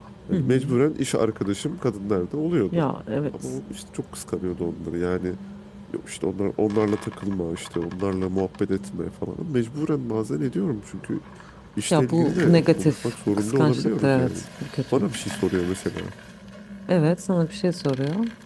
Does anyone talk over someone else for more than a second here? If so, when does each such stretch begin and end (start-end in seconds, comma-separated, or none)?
11.9-14.3